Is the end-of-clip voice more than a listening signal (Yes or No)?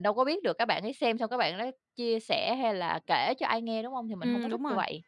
Yes